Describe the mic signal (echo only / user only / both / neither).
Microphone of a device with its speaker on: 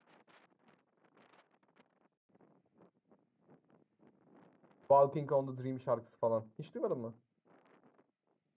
user only